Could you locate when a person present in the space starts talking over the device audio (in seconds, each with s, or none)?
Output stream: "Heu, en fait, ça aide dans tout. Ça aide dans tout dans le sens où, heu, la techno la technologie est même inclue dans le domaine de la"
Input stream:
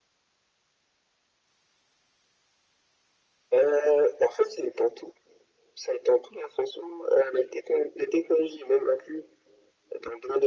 none